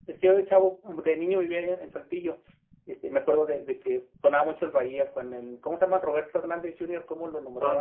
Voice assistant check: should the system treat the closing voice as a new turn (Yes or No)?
Yes